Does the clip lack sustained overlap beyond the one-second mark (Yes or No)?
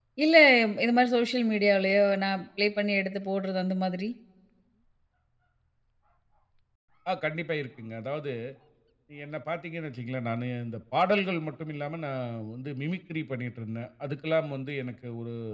Yes